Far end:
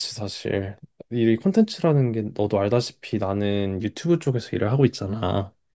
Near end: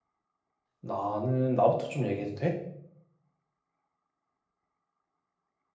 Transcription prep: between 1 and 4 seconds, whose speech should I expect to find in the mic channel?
user only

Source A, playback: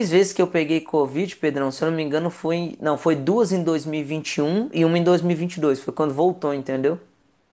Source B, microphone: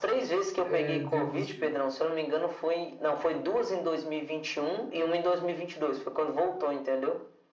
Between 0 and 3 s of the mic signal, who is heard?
both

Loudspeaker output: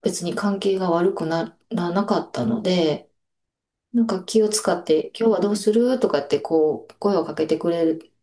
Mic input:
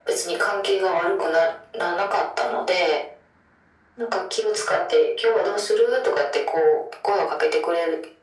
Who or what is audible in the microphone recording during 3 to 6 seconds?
echo only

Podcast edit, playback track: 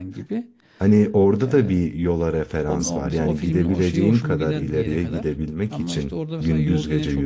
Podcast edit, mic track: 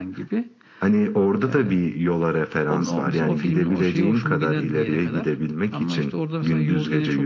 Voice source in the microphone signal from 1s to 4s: echo only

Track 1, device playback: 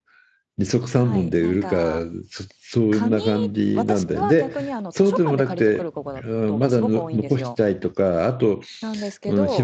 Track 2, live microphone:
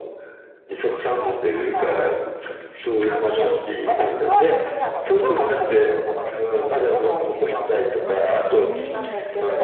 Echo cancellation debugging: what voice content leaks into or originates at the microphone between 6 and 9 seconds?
both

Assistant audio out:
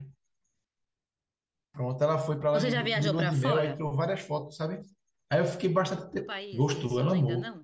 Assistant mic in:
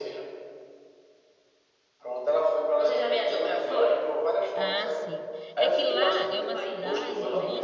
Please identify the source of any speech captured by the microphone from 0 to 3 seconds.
echo only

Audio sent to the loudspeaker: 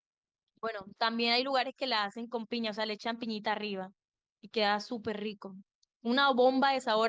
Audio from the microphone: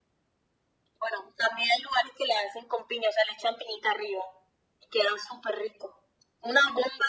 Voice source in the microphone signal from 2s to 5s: echo only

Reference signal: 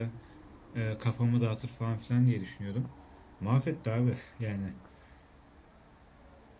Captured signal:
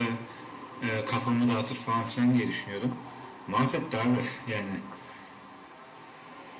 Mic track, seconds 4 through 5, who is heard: echo only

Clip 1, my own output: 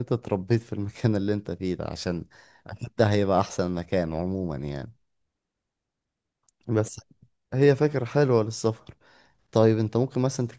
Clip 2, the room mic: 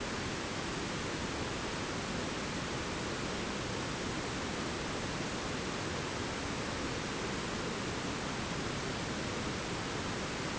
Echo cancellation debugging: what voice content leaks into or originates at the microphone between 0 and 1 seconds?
neither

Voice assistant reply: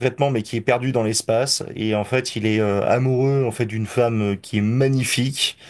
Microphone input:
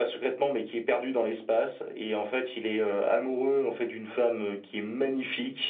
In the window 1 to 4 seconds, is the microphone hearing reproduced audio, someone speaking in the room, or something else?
echo only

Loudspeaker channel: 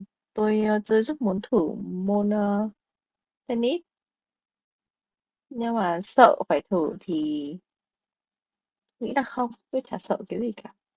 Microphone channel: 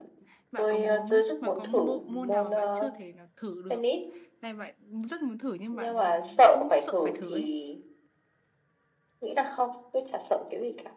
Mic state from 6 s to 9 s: both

